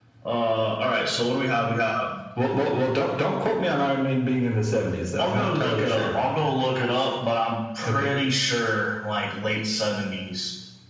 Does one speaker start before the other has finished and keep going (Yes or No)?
Yes